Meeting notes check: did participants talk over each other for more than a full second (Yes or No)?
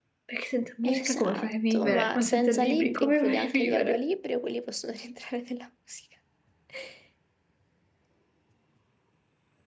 Yes